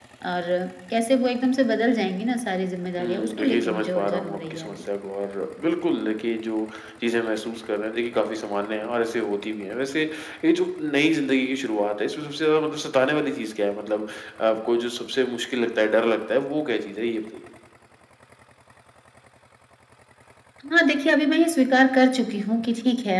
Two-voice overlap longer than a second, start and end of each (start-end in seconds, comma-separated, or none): 3.0-4.8